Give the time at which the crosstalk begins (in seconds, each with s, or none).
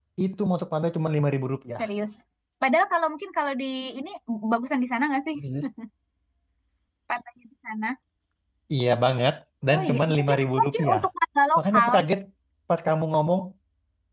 9.7 s